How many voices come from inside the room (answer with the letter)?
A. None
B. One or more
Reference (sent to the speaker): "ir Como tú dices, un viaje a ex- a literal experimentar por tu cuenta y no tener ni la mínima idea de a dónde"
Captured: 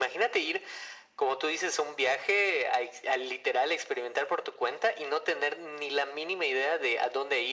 A